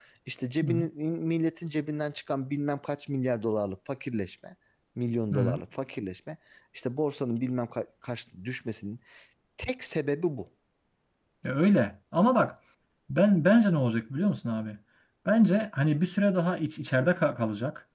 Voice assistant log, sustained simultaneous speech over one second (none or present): none